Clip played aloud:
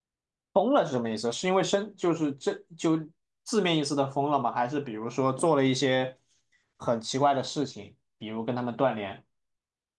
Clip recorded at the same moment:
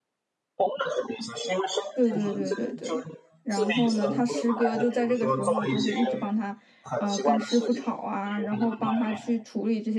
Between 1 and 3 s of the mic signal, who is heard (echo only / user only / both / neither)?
both